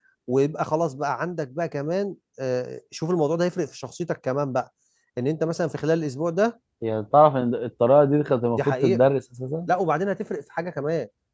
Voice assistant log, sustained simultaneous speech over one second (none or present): none